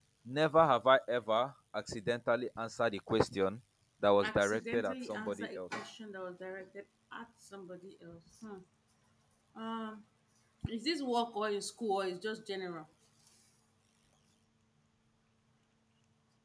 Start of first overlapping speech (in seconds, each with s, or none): 4.2 s